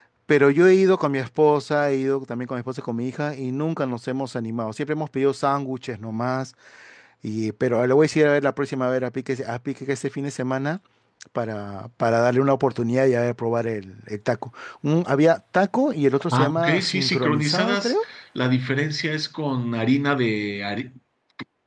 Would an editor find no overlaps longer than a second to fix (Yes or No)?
No